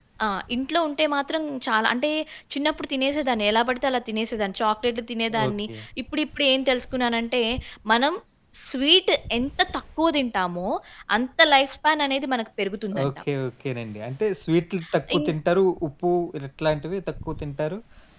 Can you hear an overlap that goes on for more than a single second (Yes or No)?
No